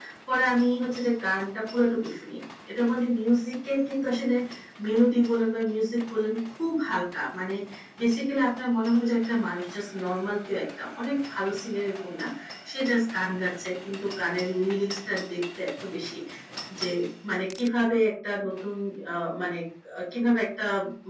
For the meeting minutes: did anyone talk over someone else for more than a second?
No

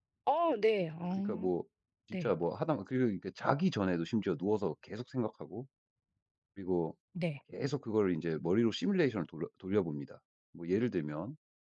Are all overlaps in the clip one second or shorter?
Yes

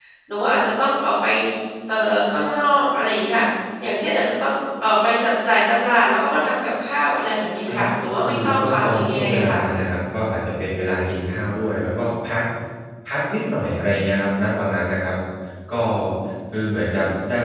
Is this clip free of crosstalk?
No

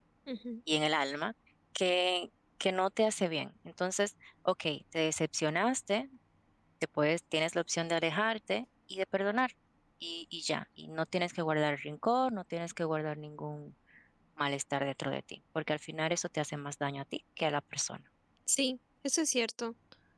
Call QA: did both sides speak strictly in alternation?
Yes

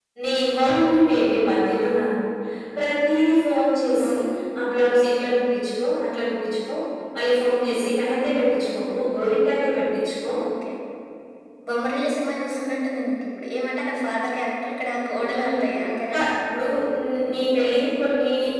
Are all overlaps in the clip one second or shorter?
Yes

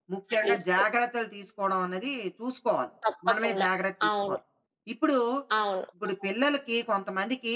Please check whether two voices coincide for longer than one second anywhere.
No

